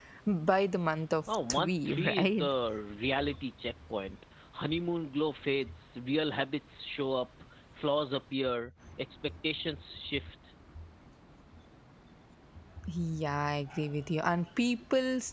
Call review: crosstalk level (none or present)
present